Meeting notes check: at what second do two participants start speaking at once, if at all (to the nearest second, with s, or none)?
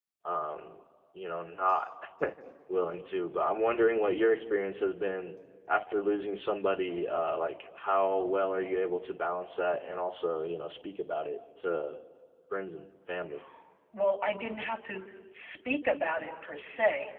none